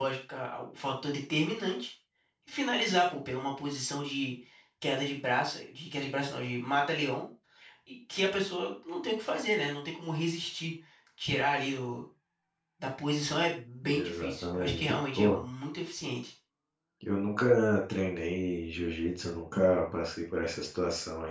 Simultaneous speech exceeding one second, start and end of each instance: 13.9-15.4

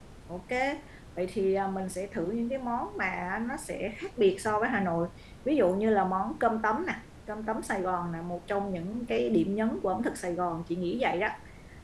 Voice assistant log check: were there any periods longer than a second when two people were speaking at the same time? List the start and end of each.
none

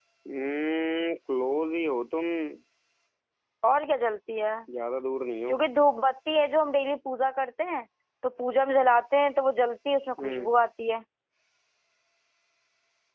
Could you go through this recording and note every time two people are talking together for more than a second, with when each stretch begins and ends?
none

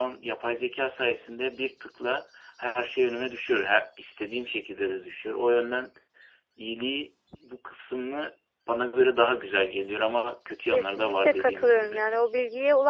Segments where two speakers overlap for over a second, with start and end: 10.7-12.0

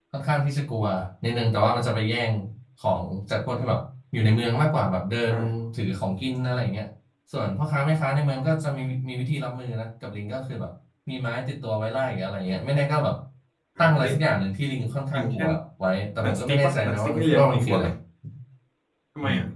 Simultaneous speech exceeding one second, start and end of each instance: 16.2-17.8

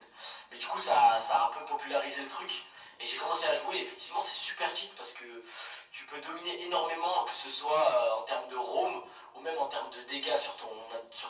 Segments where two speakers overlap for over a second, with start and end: none

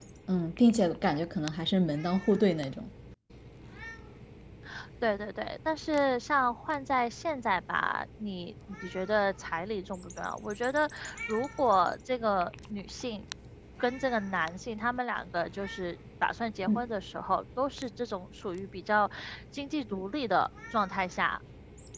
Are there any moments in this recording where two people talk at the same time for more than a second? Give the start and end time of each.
none

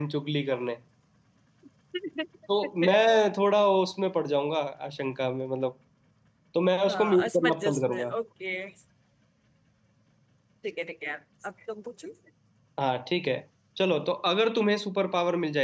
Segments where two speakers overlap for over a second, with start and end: 6.9-8.1

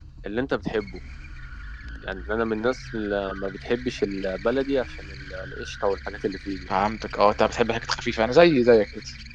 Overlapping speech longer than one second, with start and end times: none

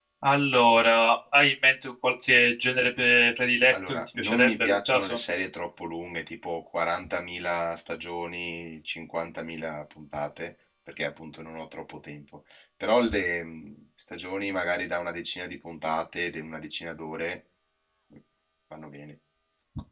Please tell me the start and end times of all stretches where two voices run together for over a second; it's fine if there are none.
3.7-5.2

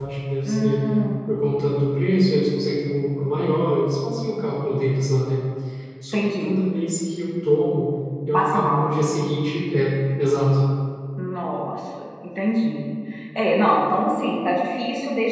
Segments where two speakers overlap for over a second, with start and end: none

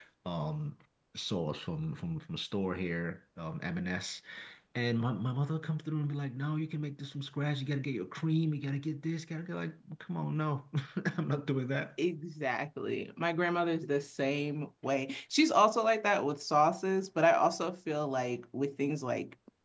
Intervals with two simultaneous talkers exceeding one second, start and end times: none

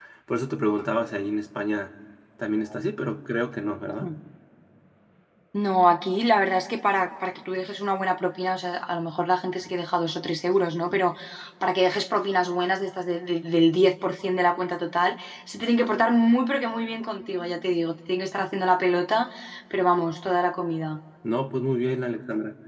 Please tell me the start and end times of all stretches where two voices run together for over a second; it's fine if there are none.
none

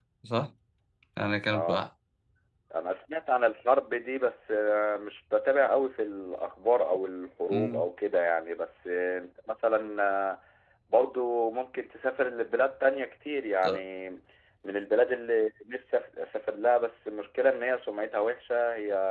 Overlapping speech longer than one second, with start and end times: none

